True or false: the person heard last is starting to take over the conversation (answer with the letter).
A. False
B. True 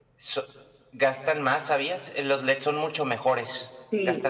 B